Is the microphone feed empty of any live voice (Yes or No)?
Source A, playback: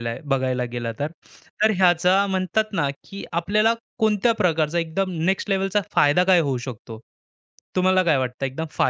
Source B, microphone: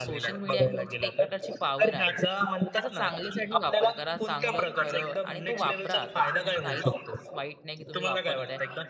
No